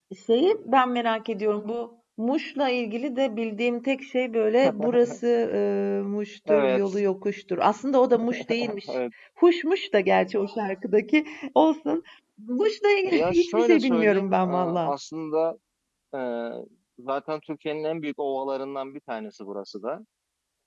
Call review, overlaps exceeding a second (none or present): present